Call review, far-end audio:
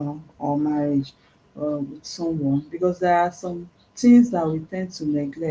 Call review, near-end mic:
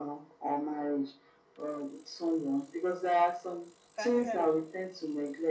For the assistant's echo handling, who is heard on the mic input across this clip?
both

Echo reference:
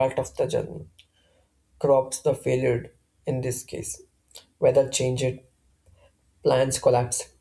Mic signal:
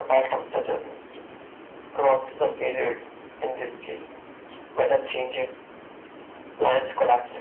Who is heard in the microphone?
echo only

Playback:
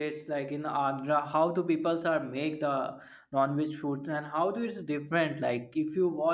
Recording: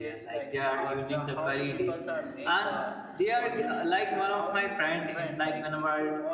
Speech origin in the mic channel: both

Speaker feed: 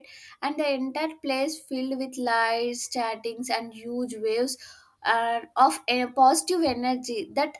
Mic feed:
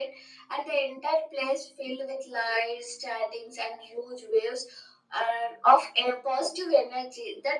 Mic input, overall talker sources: echo only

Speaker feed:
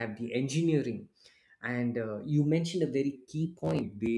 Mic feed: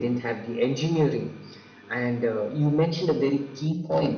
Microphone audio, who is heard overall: echo only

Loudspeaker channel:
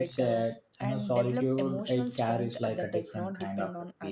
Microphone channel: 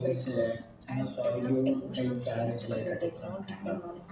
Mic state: echo only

